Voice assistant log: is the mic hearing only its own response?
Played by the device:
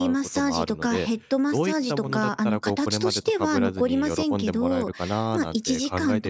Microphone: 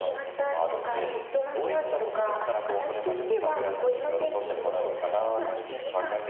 Yes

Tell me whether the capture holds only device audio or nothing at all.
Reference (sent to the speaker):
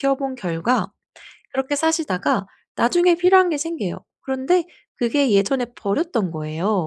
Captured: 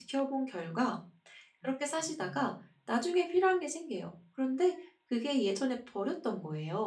No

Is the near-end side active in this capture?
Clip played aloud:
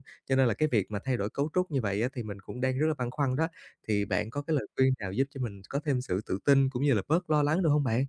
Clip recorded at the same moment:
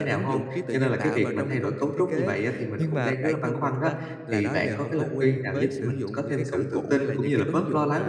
Yes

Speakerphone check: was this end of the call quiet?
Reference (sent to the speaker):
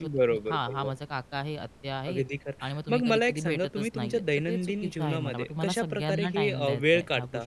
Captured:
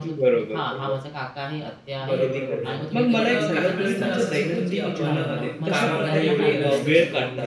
No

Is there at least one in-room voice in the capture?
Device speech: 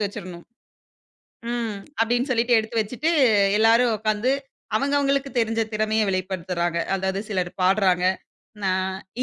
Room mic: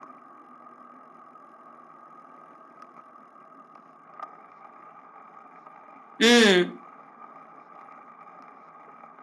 Yes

